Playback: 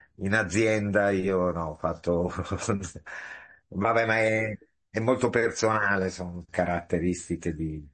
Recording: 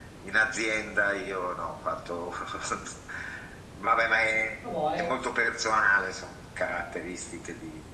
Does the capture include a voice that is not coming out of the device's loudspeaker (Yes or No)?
Yes